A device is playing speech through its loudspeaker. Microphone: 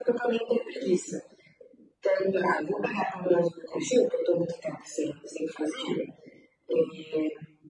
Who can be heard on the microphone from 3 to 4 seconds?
echo only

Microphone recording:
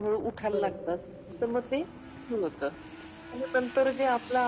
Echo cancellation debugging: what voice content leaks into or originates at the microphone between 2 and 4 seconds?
echo only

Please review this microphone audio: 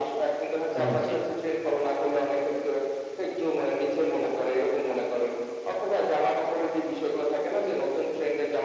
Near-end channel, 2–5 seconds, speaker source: echo only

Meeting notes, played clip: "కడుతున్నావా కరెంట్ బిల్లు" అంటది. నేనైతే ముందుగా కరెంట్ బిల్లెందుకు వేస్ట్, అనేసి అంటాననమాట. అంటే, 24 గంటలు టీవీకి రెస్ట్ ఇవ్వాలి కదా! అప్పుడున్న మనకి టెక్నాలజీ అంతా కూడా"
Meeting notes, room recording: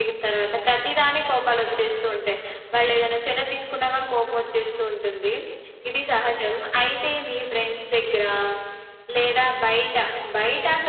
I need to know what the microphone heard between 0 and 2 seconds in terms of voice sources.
user only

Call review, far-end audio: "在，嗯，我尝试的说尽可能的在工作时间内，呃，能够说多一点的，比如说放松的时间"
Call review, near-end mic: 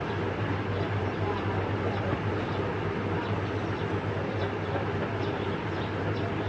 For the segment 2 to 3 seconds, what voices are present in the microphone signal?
neither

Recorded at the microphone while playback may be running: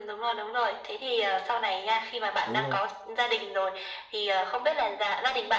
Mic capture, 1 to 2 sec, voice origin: echo only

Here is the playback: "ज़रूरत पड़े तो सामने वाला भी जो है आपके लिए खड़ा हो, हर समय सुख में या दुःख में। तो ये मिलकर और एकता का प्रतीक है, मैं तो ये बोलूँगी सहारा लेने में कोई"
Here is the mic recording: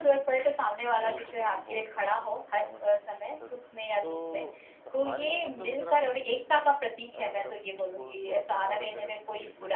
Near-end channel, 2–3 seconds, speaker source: both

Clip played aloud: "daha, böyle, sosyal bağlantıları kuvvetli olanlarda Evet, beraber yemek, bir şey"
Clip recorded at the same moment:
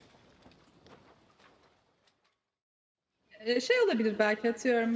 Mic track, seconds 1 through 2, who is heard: neither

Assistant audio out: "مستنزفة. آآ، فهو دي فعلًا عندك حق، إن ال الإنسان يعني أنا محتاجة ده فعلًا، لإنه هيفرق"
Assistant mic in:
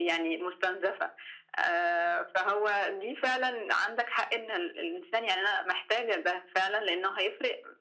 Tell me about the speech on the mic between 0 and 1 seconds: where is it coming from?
echo only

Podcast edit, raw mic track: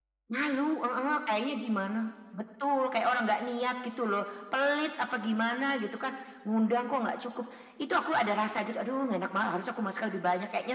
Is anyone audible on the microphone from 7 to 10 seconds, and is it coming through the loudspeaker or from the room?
echo only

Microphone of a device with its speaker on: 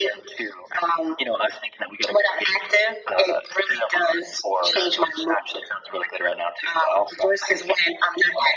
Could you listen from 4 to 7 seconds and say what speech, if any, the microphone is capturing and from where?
echo only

